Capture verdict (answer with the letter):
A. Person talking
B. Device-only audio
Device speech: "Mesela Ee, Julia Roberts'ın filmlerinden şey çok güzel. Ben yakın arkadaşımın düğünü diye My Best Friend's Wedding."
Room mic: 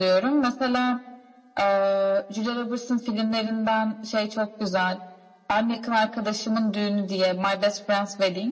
B